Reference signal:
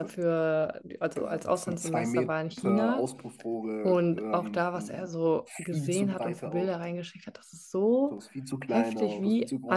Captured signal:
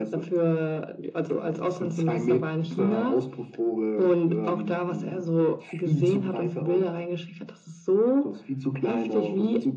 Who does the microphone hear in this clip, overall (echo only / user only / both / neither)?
echo only